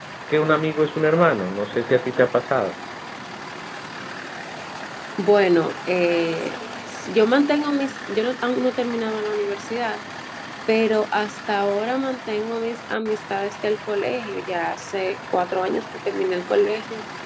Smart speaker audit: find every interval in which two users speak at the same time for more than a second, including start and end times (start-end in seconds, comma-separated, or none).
none